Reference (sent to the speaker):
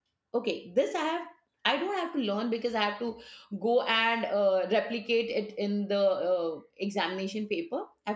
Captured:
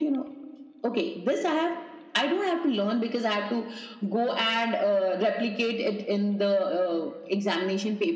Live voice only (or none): none